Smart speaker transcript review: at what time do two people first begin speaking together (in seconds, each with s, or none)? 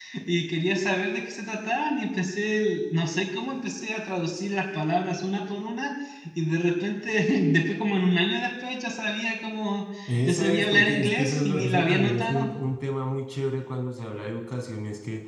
10.3 s